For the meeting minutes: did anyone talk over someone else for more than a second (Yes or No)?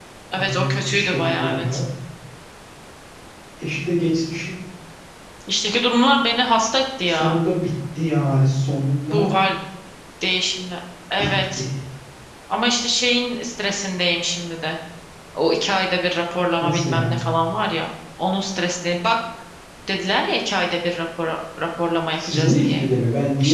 Yes